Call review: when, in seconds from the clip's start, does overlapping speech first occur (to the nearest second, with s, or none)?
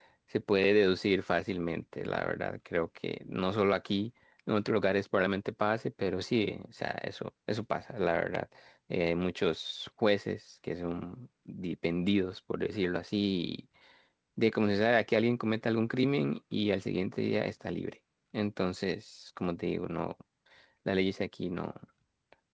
none